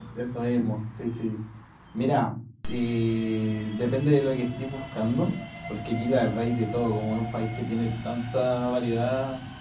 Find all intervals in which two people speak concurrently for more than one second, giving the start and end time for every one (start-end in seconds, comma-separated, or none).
none